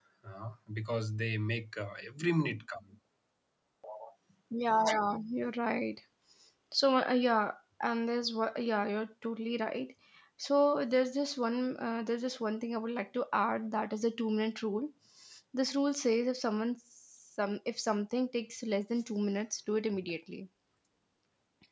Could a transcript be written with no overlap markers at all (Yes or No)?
Yes